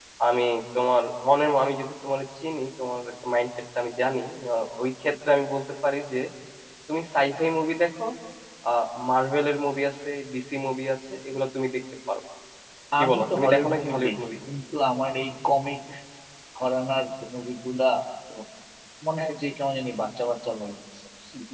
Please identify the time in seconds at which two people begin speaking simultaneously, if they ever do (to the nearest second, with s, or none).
13 s